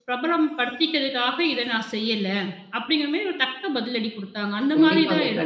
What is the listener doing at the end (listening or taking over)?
taking over